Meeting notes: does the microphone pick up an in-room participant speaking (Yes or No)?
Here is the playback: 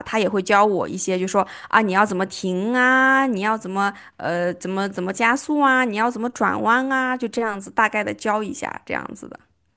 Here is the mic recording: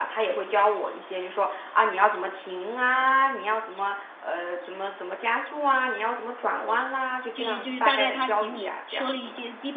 Yes